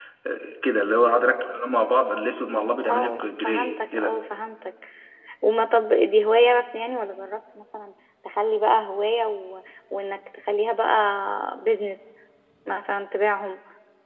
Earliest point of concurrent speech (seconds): 2.4 s

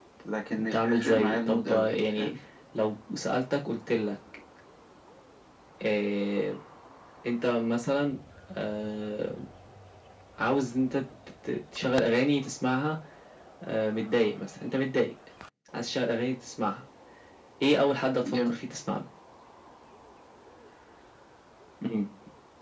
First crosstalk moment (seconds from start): 0.6 s

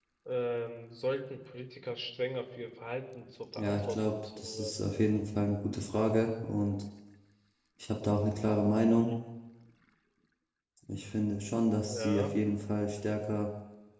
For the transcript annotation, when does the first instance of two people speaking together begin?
3.6 s

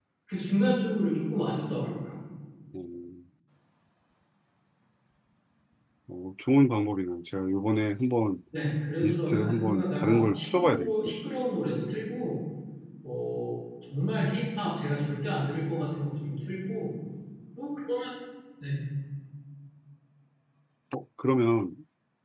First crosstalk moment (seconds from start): 9.0 s

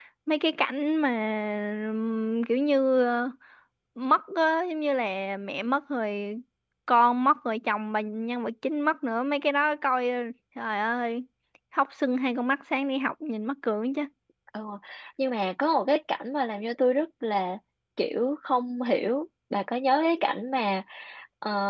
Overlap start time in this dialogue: none

